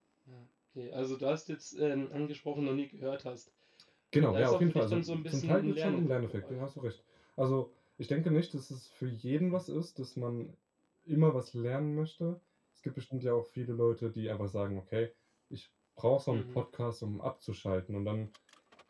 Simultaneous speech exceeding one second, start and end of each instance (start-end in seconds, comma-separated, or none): 4.3-6.6